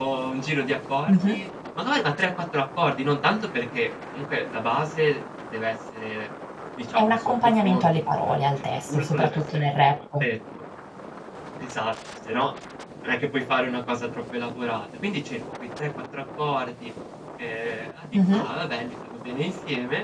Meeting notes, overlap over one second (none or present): present